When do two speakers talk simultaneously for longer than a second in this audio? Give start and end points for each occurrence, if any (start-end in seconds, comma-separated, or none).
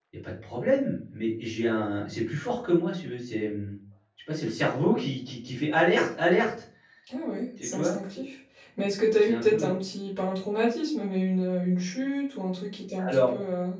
none